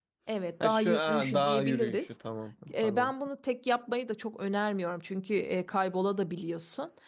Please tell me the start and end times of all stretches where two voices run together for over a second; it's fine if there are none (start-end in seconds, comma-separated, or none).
0.6-2.1